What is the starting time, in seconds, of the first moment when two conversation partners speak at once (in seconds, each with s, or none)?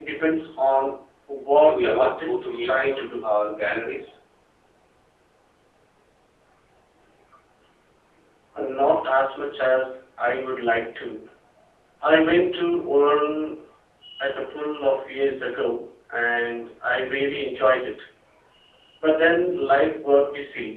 1.6 s